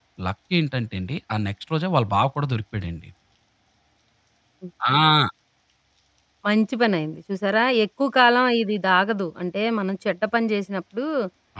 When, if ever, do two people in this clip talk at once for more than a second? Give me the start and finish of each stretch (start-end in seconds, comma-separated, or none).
none